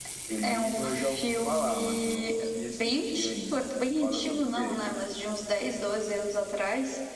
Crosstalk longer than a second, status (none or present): present